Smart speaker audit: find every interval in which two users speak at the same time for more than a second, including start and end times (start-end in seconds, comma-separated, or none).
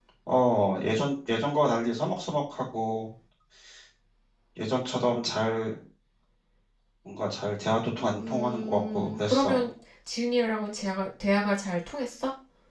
8.2-9.6